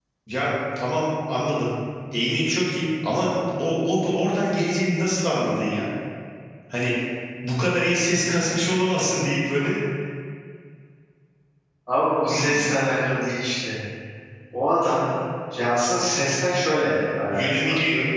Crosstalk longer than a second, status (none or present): none